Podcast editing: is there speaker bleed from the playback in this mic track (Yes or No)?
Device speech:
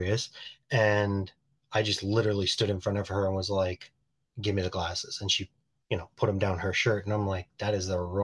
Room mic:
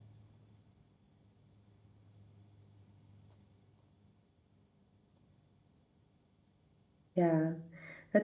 No